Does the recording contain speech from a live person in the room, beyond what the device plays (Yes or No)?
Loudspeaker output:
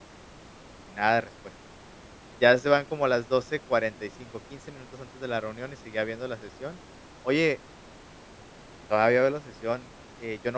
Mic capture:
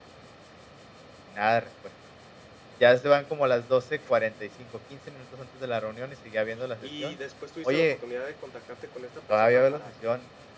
Yes